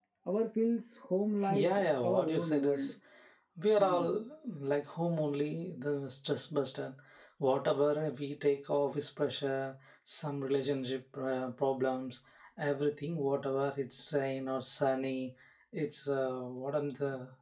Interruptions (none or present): present